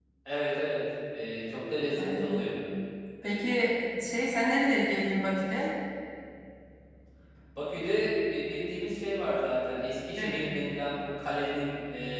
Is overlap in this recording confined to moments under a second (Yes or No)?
Yes